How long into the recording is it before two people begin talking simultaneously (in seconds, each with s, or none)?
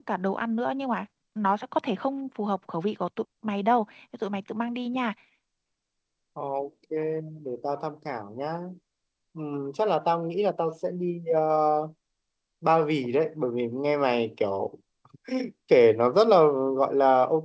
none